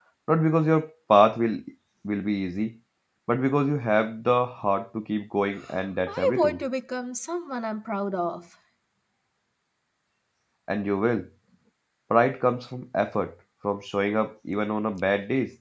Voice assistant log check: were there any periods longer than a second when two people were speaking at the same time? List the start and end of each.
none

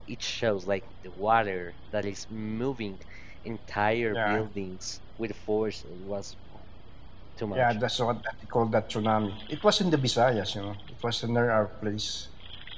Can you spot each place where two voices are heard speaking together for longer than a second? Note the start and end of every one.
none

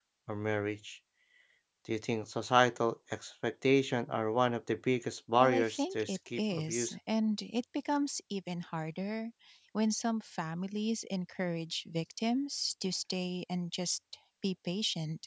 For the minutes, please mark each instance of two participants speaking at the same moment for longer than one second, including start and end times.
5.4-6.9

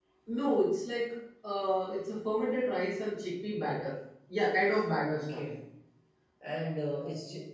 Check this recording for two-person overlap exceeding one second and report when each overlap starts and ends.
none

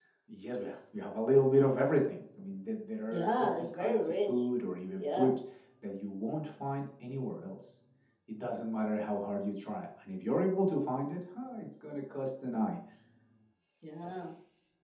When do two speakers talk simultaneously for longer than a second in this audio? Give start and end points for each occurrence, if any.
3.1-4.3

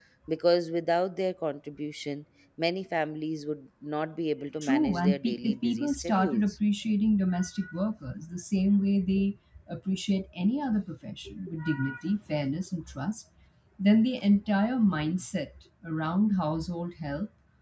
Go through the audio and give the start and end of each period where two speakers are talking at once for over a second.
4.6-6.6

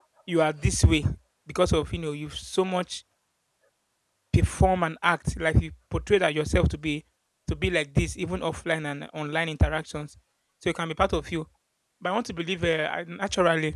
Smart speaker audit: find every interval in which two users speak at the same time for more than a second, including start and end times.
none

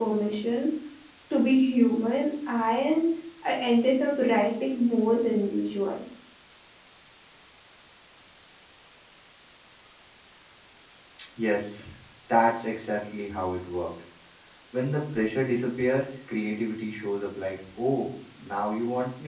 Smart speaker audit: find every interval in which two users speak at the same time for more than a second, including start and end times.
none

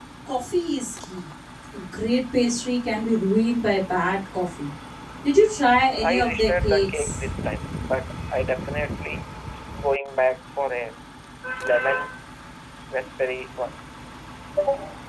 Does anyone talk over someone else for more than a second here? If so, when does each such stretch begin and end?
6.0-7.2

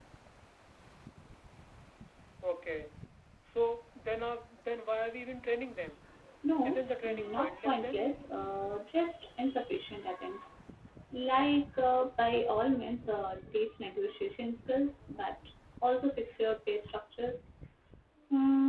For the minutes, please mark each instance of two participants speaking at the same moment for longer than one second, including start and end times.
6.6-8.0

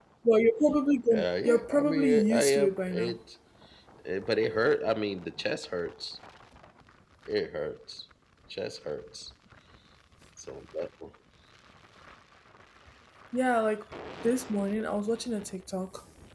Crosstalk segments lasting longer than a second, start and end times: 1.1-3.2

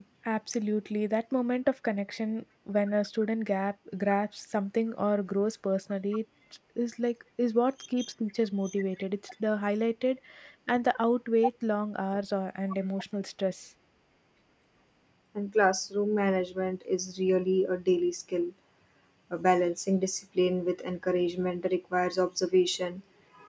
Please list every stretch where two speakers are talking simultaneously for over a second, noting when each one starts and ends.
none

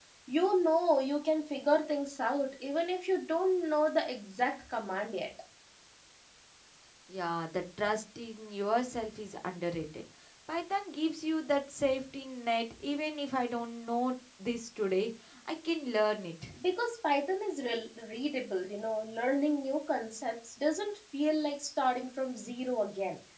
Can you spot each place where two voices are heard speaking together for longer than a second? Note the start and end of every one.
none

